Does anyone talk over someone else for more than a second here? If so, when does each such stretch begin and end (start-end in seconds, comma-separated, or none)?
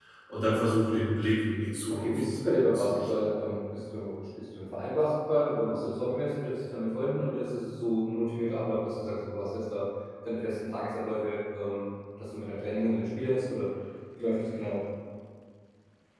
1.9-3.3